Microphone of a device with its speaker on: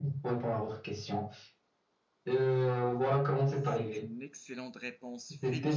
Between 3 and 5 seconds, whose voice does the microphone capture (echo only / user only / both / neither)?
both